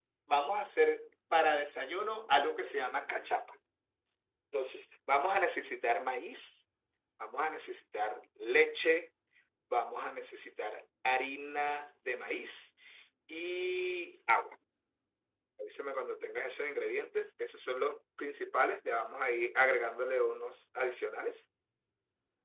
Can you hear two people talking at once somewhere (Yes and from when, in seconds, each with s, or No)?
No